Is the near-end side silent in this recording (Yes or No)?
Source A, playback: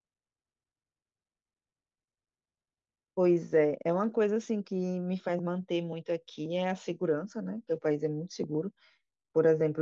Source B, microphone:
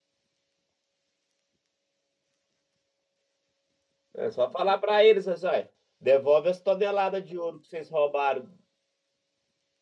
No